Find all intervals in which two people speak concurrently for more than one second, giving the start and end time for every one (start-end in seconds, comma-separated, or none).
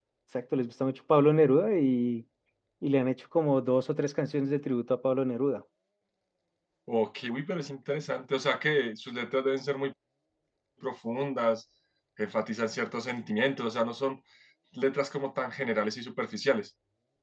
none